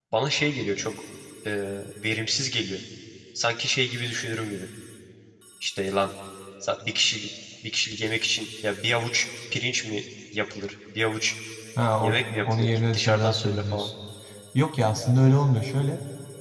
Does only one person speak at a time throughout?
No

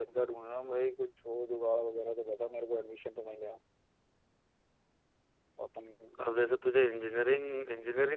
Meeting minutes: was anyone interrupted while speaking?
No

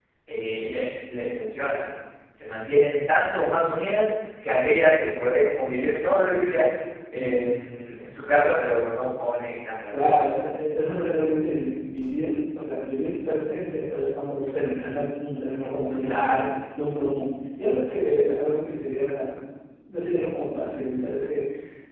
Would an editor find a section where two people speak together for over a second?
No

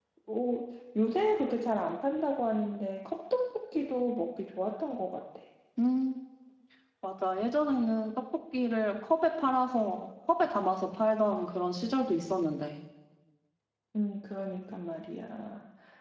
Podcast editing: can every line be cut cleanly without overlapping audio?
Yes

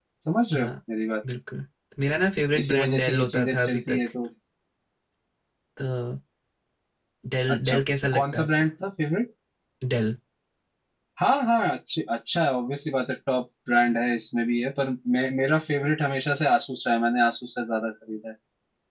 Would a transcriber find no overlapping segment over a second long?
No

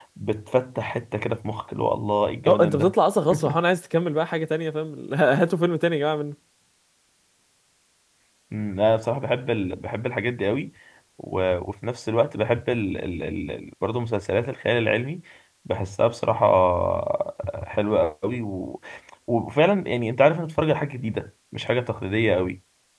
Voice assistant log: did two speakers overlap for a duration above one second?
No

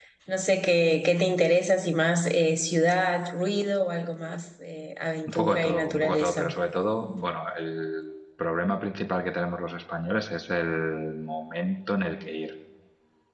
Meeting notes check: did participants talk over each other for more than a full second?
Yes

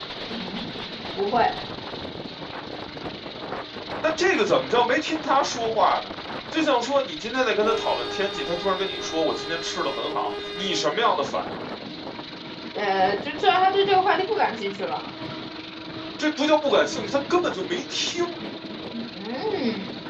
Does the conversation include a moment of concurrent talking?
No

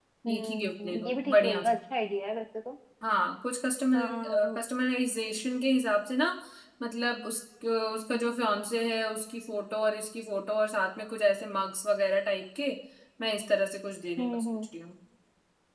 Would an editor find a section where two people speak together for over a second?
Yes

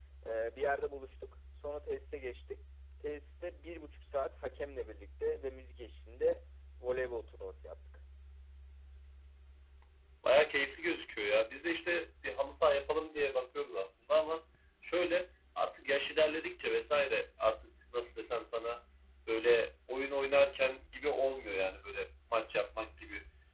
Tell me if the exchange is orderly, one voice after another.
Yes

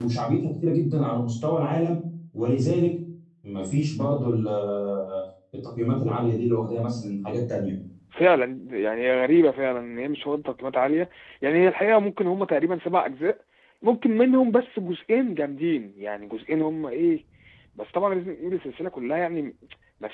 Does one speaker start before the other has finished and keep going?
No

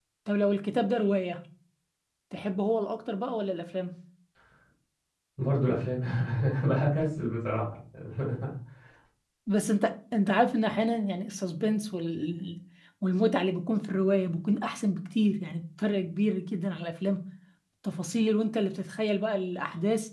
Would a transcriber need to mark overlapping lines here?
No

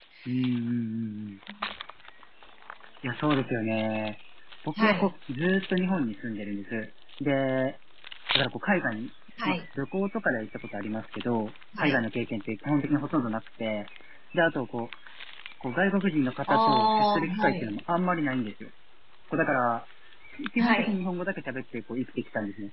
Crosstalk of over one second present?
Yes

